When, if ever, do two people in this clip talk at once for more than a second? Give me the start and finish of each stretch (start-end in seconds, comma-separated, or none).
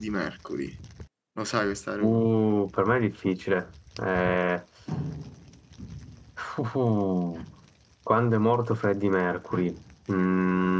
none